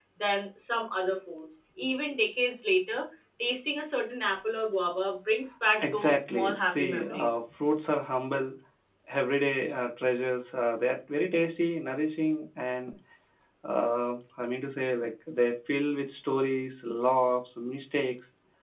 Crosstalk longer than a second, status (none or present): present